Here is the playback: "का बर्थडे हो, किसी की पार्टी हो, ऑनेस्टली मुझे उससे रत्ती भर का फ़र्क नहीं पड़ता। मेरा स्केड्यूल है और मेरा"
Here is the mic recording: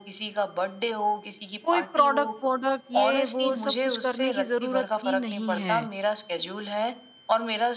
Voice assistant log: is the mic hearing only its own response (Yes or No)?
No